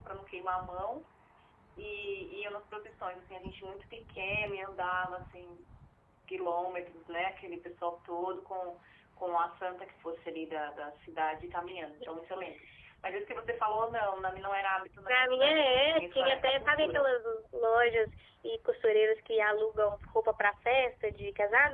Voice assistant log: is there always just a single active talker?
No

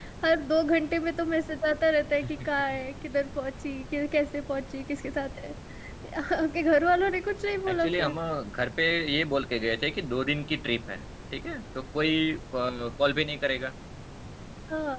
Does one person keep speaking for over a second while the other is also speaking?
No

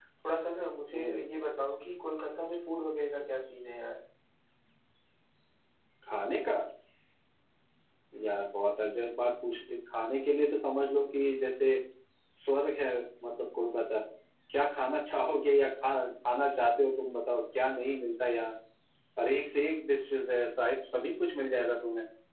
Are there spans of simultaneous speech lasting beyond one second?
No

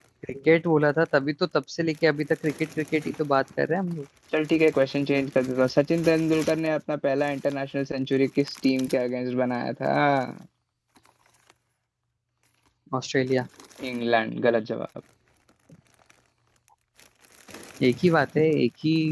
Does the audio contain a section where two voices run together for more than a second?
No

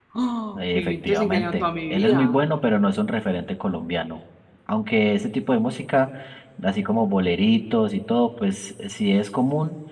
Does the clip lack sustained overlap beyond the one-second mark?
No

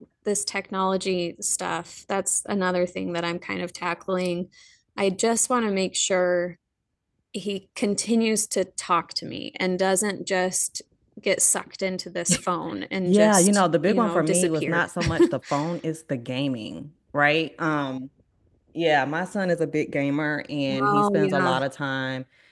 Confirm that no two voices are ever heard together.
No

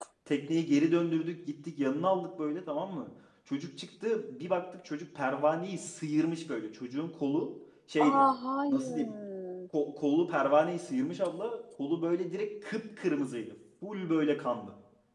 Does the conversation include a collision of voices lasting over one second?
No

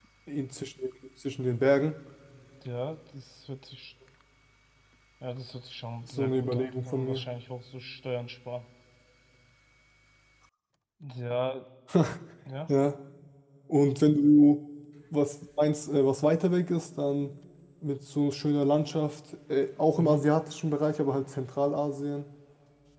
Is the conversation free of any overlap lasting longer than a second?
No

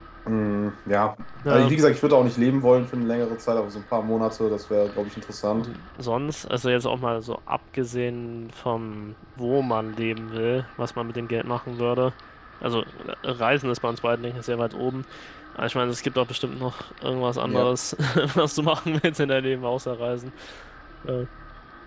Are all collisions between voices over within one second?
Yes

